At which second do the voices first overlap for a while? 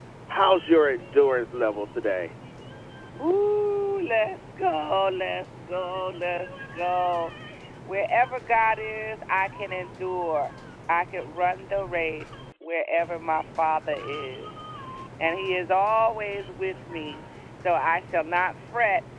none

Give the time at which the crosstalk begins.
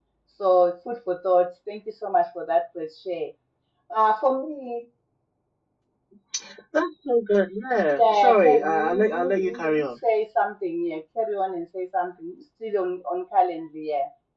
8.0 s

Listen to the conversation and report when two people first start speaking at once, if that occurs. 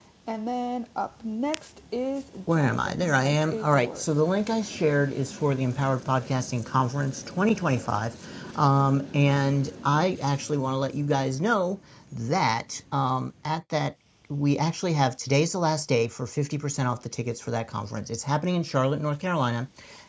2.5 s

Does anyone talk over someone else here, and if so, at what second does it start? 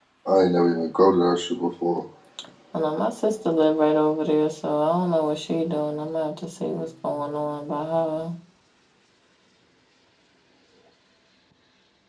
none

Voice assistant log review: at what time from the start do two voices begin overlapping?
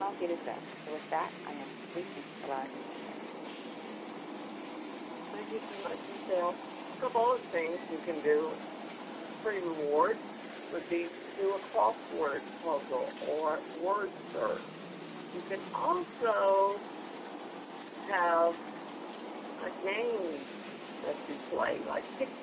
none

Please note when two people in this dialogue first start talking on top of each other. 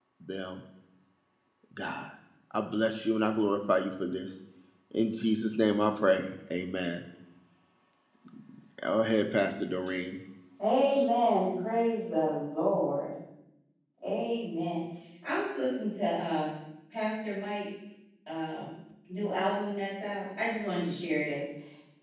none

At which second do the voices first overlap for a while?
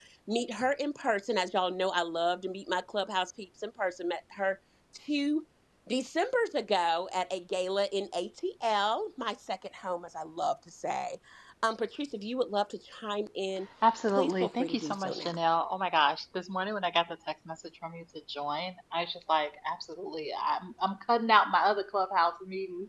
14.1 s

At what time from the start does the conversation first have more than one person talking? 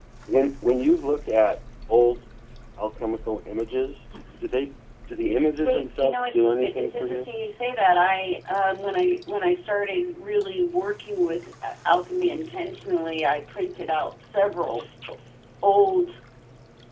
5.6 s

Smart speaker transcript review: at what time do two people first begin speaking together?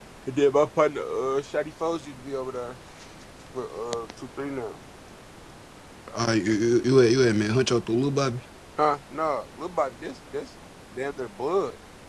none

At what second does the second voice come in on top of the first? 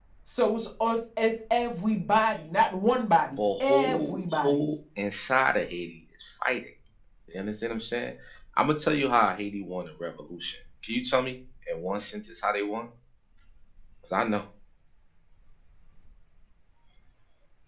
3.4 s

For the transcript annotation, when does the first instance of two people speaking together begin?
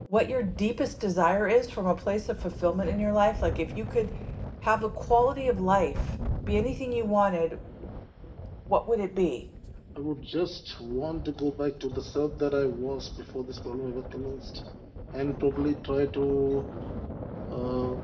none

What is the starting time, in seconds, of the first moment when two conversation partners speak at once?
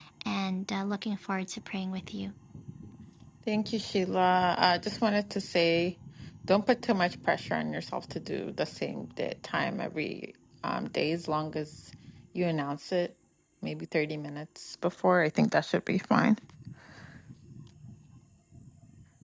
none

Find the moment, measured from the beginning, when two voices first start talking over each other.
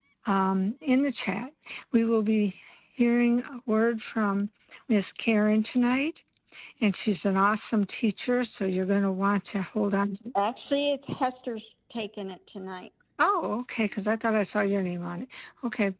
none

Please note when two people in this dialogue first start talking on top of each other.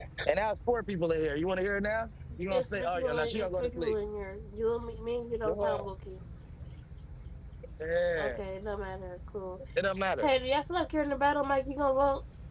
2.5 s

